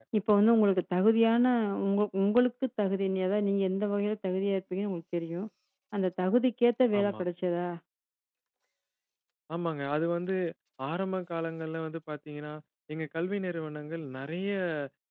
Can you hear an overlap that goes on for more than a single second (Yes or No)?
No